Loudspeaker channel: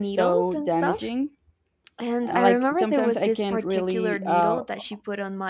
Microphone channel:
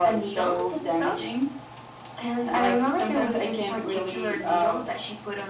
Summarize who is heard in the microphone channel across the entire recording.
echo only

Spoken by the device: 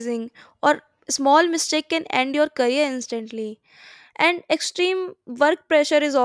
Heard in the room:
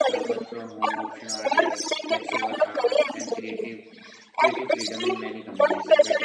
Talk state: both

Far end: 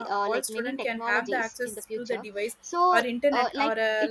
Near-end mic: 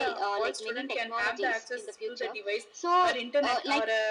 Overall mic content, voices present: echo only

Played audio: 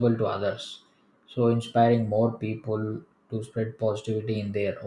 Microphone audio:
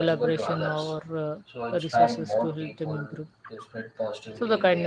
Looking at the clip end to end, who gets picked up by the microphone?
both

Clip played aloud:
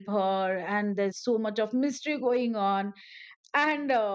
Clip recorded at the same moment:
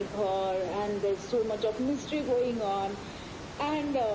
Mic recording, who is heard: echo only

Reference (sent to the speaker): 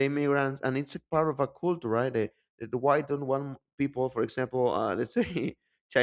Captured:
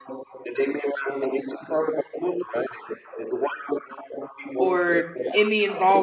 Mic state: both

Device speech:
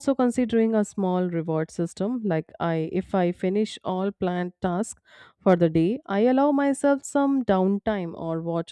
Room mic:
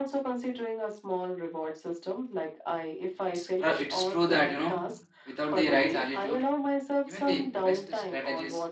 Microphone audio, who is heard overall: both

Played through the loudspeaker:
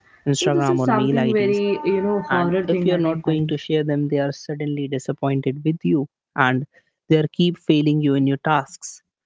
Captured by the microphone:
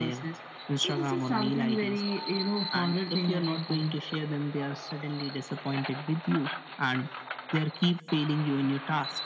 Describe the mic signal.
echo only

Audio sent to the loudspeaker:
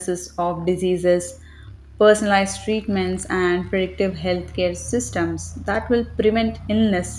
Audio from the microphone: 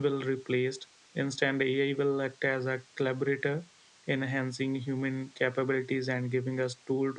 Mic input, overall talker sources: user only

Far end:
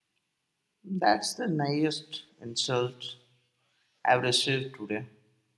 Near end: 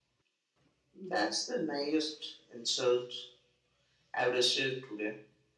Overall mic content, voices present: echo only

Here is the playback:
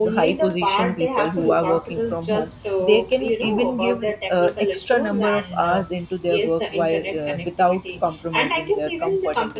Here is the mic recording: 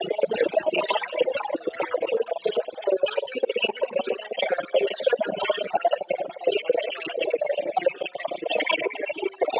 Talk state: echo only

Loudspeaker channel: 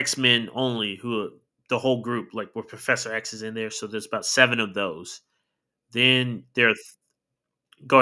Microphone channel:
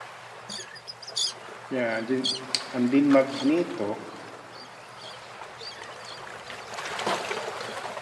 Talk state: user only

